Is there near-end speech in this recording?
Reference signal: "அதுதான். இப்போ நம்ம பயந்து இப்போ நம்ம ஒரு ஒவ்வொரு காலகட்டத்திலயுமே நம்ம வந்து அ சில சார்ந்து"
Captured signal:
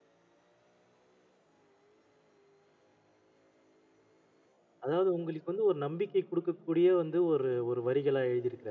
Yes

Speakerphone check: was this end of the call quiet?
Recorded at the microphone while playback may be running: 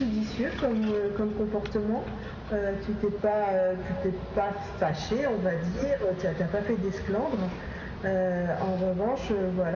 Yes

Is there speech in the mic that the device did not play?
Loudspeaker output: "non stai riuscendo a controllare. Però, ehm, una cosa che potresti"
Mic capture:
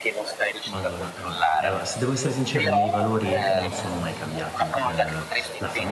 Yes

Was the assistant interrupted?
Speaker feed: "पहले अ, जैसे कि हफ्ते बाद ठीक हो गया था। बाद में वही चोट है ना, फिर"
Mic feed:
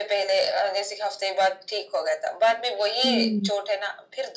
Yes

